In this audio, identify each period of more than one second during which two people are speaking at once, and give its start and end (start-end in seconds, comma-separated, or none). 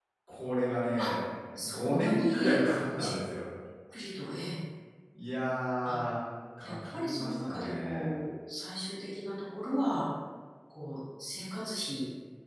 1.7-3.1, 6.6-8.1